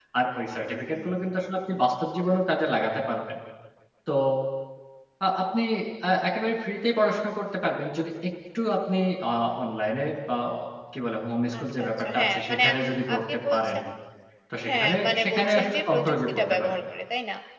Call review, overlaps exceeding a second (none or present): present